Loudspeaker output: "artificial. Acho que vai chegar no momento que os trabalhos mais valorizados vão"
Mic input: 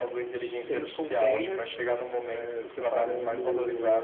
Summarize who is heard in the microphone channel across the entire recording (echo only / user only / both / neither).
both